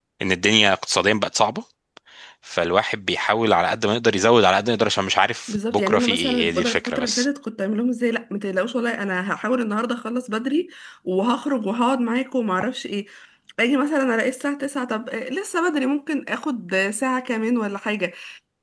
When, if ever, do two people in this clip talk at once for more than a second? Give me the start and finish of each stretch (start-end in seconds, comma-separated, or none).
5.5-7.2